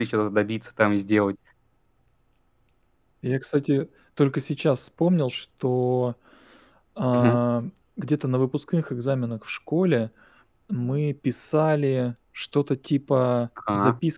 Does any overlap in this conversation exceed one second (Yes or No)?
No